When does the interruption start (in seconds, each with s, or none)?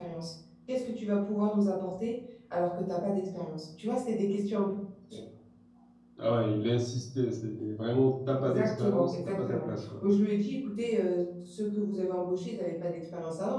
8.4 s